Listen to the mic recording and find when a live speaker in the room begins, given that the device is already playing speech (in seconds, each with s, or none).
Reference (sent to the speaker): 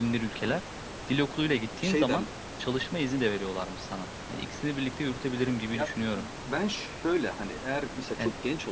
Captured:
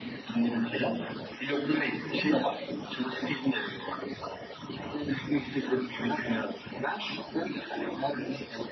none